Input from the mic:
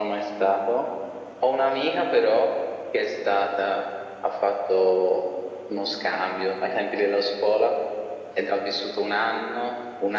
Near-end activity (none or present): none